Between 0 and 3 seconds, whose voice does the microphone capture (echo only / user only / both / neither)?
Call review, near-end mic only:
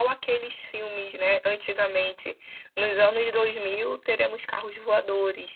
echo only